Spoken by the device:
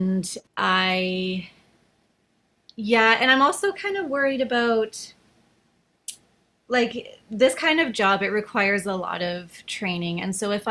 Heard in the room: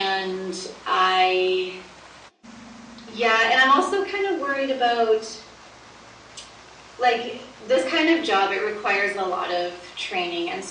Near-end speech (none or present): none